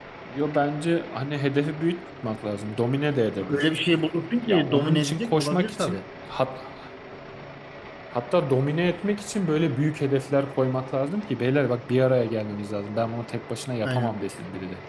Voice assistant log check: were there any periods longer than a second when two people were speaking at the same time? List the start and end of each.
4.5-6.0

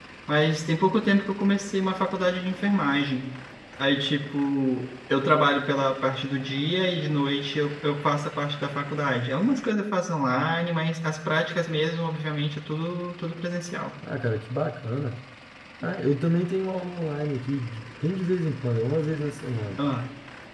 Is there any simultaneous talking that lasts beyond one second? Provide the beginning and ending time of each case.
none

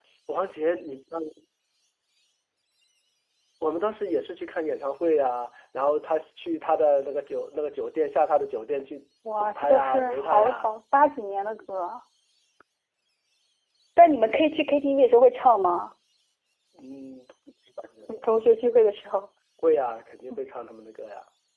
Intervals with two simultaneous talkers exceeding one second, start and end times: 9.4-10.7

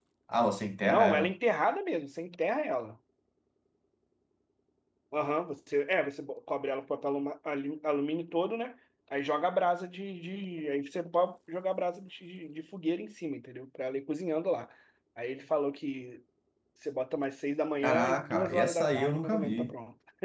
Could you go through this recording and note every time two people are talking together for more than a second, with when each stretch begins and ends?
17.8-19.7

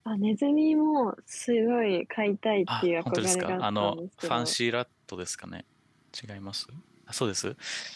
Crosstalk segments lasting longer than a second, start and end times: 2.8-4.5

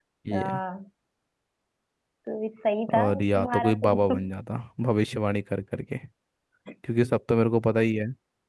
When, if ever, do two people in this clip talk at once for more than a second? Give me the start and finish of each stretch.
3.0-4.2

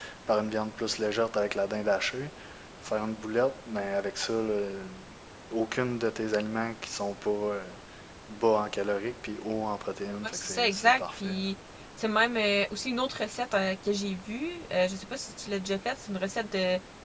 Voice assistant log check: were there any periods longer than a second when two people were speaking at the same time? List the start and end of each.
10.2-11.5

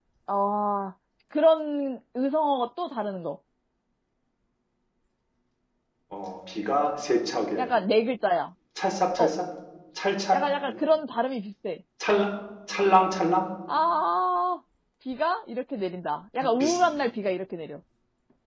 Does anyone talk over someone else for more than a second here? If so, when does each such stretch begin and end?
none

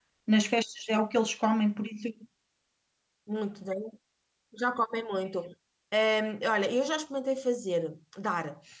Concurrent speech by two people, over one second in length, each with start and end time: none

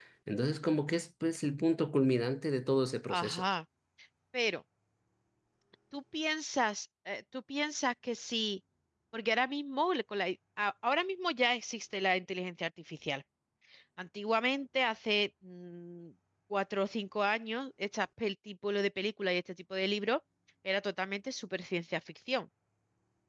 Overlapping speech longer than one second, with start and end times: none

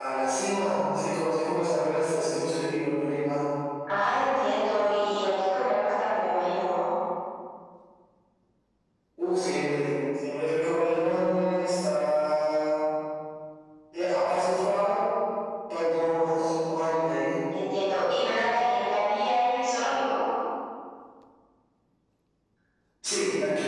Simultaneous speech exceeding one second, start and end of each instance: none

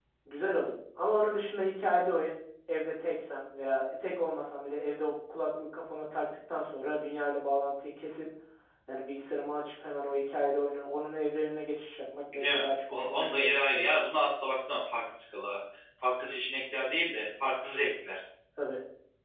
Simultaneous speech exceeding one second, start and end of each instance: 12.3-13.9

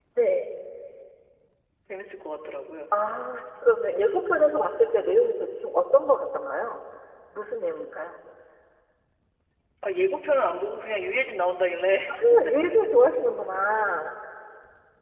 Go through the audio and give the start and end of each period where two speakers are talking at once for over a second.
none

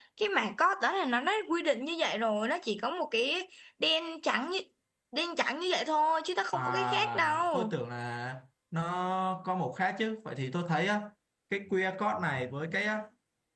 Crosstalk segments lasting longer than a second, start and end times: 6.5-7.7

